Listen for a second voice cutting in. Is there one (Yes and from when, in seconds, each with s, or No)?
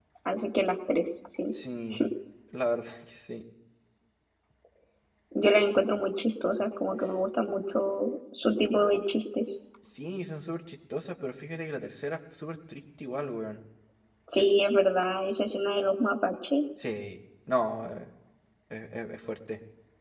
No